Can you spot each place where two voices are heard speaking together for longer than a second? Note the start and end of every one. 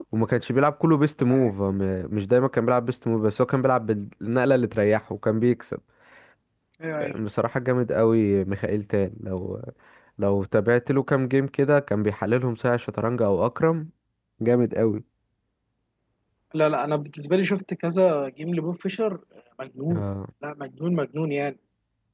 none

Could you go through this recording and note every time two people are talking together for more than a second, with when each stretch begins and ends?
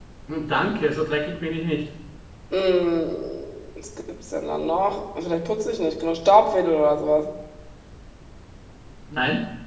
none

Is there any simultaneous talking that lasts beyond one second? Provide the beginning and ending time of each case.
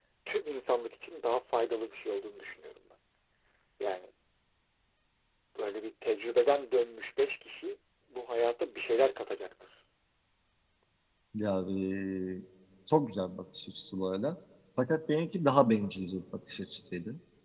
none

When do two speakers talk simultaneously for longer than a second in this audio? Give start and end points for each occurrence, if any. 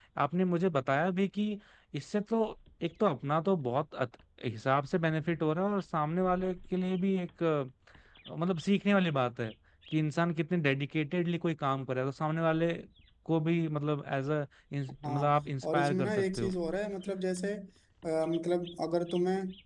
15.1-16.5

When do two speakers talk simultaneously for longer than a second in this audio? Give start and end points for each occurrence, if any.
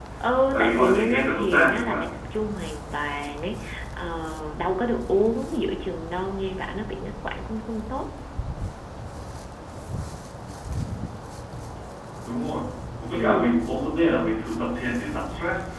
0.5-2.0

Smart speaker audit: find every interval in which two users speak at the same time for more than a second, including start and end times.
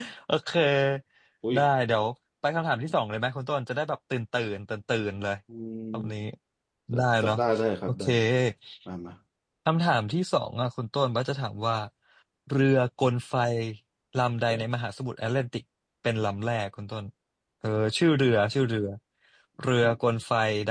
none

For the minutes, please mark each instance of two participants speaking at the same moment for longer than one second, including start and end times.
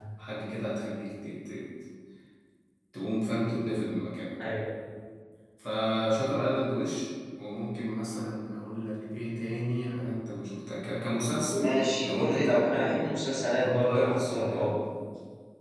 11.5-13.1, 13.5-14.7

